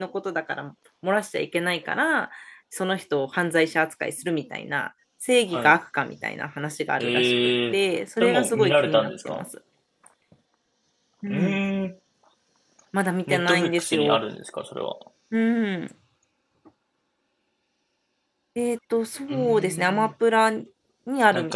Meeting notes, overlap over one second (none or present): present